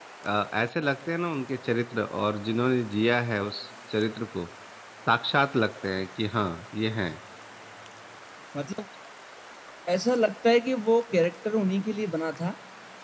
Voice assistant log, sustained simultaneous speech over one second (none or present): none